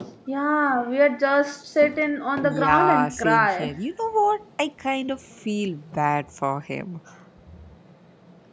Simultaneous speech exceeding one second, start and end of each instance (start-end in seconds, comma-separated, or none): 2.4-3.7